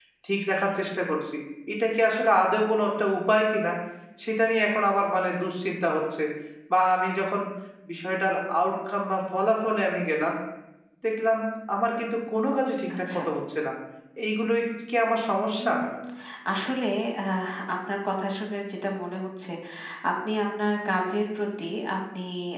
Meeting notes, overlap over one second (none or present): none